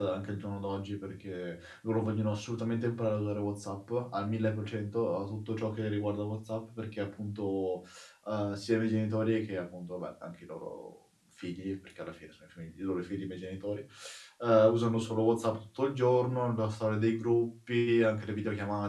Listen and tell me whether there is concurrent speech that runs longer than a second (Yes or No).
No